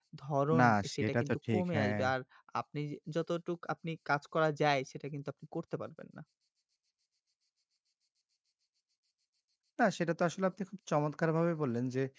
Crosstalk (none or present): present